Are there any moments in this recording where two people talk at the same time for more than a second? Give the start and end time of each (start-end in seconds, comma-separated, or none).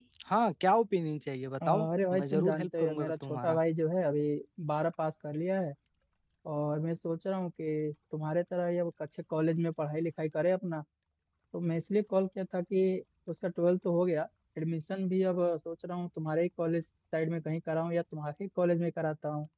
1.7-3.6